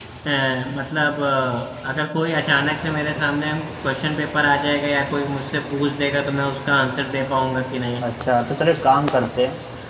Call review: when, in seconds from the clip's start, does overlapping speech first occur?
none

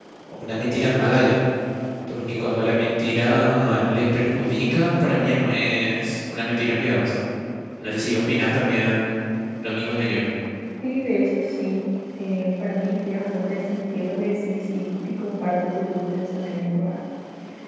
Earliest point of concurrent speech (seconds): none

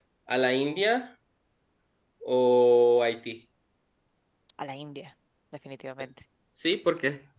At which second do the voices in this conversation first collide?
none

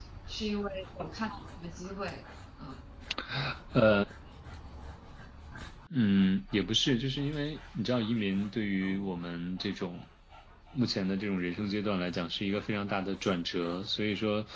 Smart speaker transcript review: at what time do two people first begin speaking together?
none

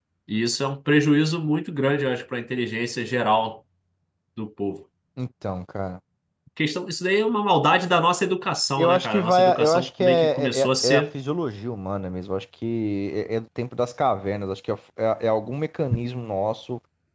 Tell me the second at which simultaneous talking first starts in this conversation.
8.8 s

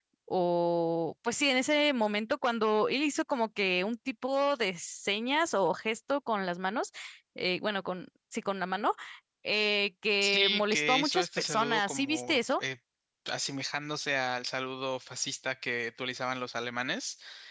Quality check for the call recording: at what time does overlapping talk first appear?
10.2 s

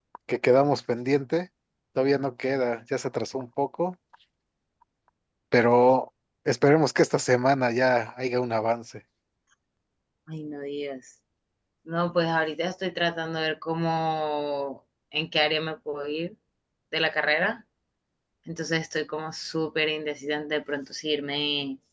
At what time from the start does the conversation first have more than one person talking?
none

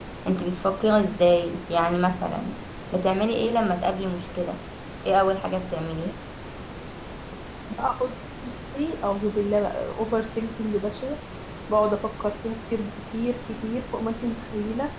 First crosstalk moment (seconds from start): none

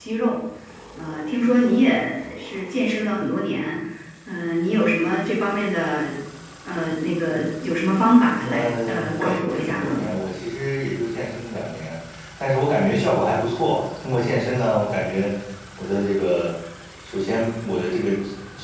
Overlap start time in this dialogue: 8.5 s

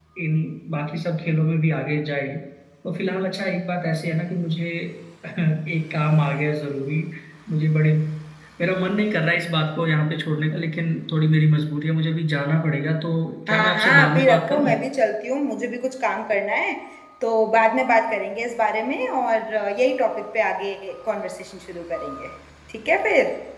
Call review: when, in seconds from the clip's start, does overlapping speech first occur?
13.5 s

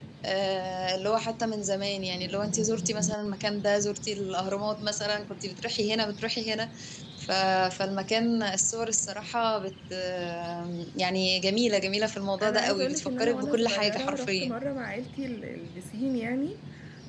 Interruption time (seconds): 12.4 s

